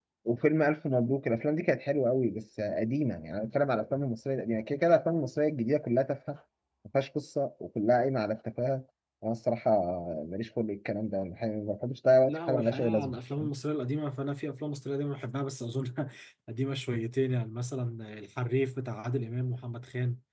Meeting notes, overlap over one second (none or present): present